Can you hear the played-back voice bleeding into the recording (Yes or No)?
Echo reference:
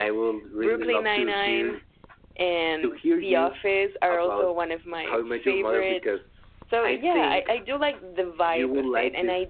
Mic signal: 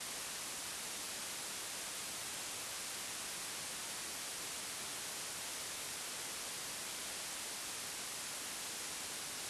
No